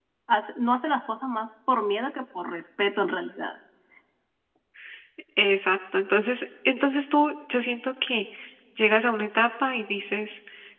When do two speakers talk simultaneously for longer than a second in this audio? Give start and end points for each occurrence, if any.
none

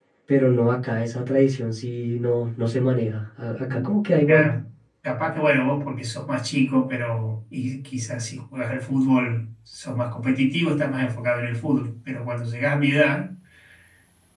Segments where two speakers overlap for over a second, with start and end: none

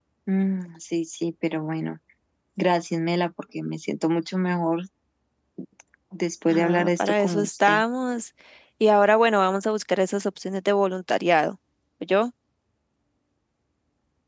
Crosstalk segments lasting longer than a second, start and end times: 6.5-7.8

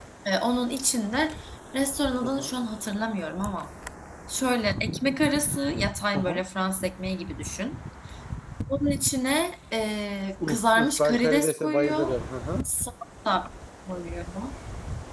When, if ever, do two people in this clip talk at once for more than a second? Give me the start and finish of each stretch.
10.5-12.1

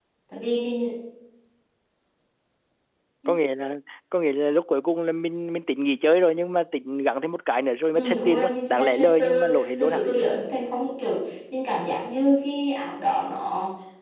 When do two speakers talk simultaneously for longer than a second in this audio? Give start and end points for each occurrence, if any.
7.9-10.0

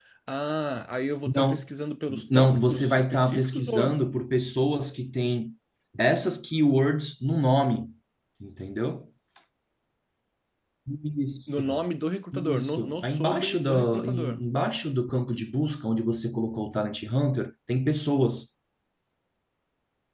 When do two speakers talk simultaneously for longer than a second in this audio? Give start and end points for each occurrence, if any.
2.1-4.0, 12.3-14.4

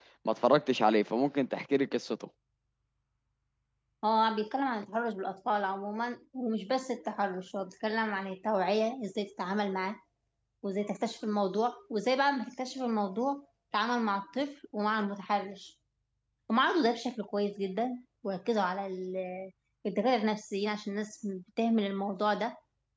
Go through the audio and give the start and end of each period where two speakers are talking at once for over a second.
none

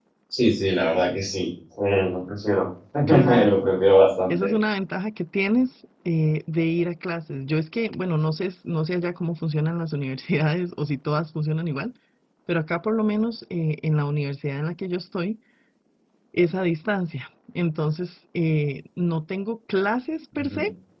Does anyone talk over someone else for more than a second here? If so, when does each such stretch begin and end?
none

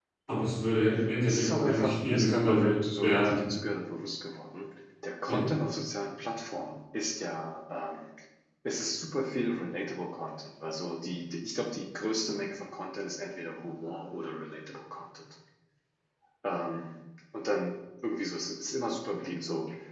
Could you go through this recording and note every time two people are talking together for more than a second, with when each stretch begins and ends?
1.3-3.5

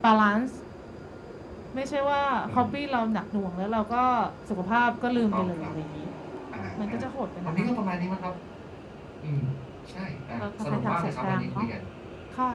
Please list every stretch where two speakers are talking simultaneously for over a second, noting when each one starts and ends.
10.4-11.6

